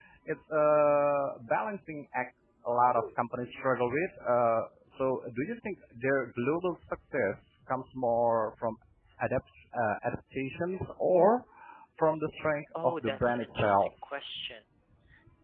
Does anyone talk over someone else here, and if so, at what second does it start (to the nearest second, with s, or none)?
13 s